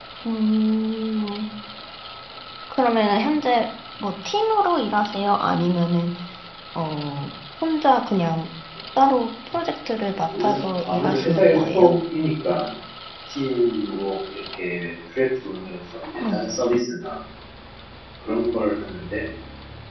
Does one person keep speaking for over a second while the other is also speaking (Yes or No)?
Yes